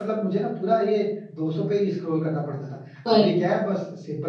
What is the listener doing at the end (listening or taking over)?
listening